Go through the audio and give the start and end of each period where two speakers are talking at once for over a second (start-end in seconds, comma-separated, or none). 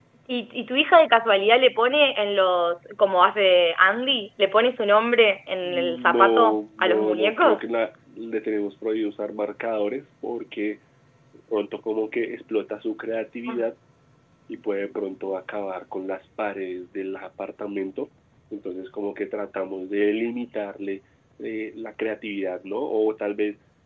5.6-7.7